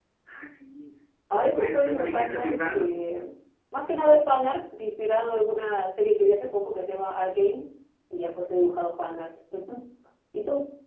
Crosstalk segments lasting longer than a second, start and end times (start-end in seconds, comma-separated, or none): 1.4-2.9